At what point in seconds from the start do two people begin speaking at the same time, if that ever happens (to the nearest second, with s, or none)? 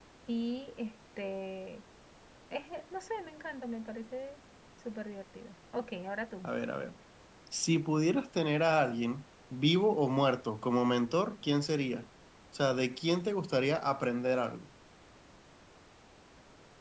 none